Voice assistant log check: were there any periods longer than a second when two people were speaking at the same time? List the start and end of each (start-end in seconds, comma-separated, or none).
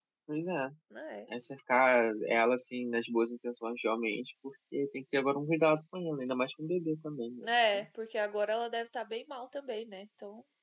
none